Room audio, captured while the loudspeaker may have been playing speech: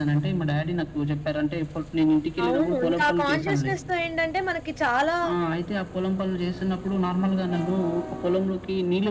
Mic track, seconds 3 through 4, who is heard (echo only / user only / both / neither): both